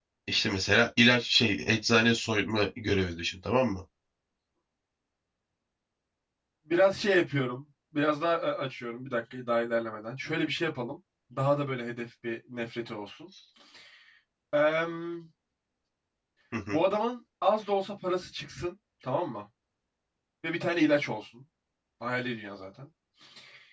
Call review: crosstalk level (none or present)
none